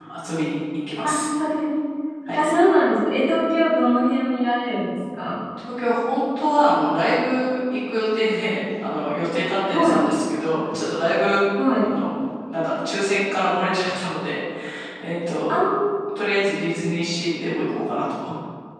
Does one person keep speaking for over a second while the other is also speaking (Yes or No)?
No